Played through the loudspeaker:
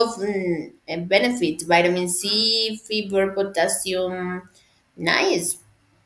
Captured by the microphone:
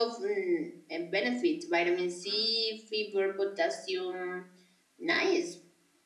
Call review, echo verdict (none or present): present